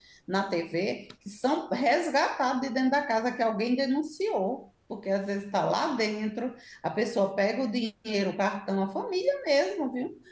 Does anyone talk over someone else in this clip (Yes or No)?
No